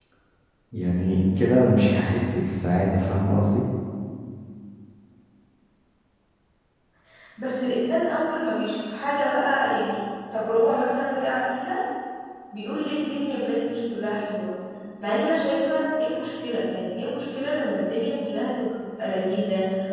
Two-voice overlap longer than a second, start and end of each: none

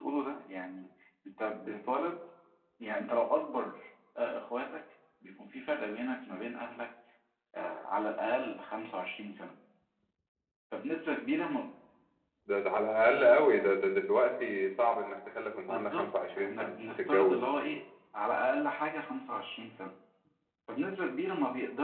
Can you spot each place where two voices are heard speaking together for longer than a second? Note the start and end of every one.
15.6-17.5

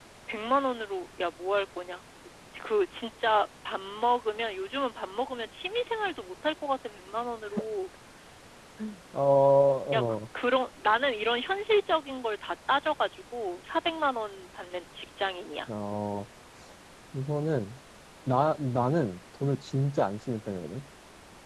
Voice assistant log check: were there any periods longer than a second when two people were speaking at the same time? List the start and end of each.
none

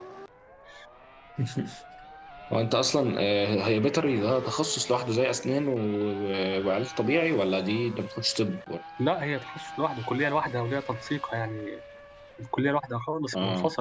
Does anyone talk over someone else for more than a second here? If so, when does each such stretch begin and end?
none

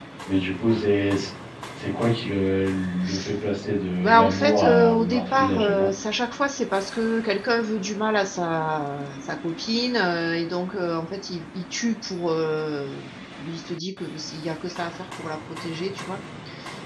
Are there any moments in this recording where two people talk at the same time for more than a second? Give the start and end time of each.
4.0-5.9

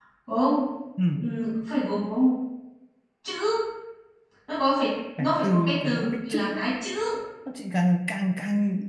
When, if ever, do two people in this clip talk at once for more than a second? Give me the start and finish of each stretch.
5.2-6.7

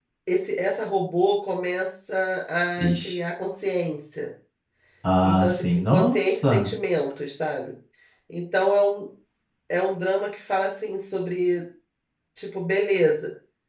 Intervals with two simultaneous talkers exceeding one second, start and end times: 5.2-6.7

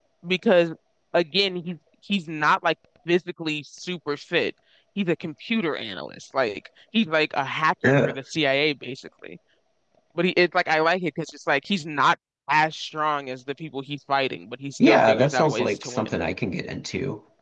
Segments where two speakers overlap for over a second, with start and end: 14.8-16.1

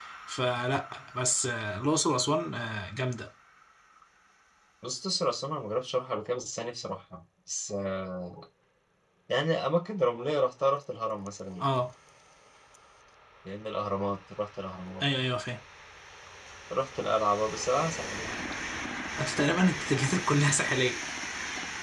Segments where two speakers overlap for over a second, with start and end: none

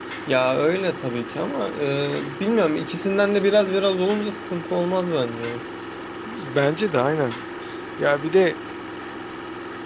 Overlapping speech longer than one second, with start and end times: none

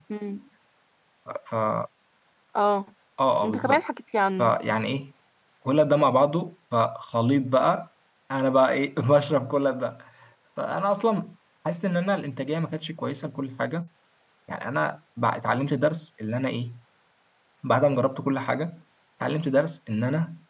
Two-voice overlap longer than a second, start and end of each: none

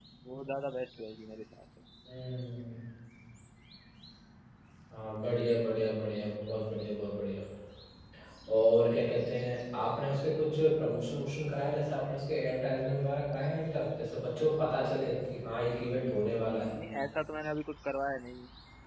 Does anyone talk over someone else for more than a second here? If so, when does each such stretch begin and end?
none

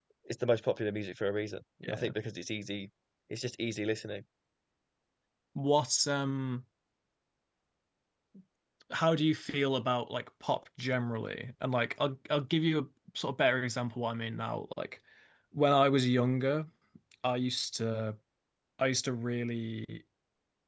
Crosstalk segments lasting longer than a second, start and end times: none

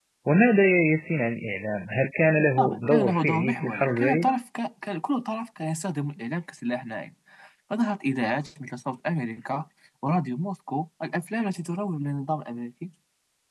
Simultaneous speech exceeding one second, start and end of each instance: 2.6-4.3

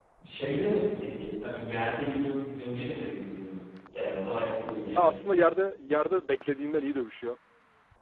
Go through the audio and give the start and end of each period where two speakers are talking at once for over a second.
none

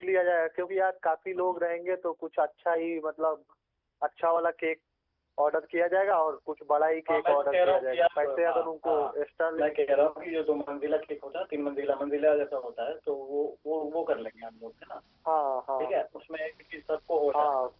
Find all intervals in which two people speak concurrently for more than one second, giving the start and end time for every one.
7.1-9.2

